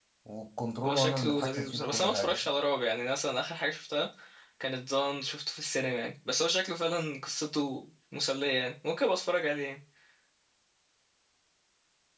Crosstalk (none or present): present